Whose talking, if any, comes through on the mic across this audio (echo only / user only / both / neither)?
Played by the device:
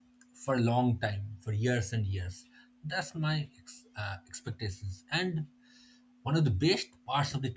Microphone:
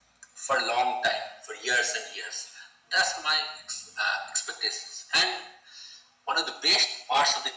echo only